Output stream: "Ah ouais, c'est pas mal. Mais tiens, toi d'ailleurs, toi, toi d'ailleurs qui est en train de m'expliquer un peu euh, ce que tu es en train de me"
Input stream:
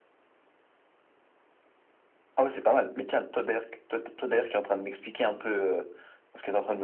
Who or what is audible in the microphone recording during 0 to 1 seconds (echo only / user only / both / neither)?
neither